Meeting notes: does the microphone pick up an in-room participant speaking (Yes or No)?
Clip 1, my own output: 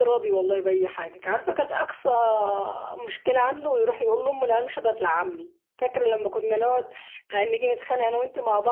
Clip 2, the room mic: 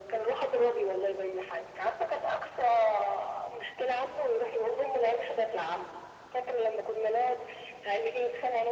No